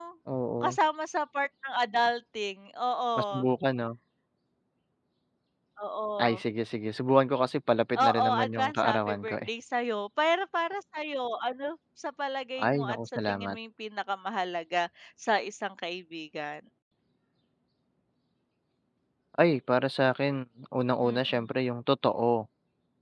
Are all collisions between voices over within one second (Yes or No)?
No